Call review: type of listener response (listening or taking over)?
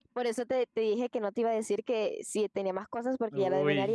taking over